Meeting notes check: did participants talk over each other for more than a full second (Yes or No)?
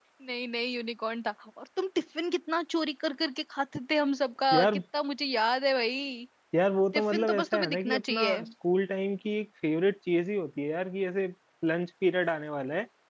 Yes